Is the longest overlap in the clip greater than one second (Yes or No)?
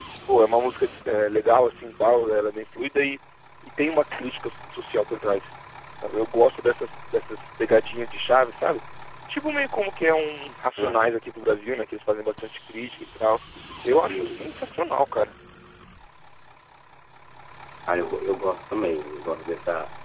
No